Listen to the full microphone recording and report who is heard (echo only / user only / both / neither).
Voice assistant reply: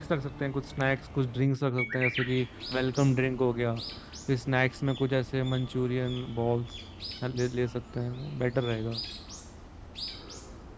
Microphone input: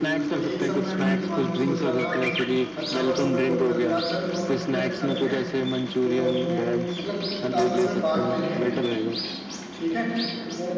both